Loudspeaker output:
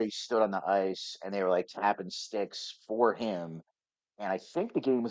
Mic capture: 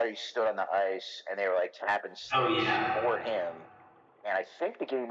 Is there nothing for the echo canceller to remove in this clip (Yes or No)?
No